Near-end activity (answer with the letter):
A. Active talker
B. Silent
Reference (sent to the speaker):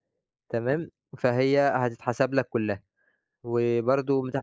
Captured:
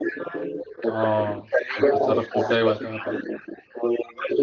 A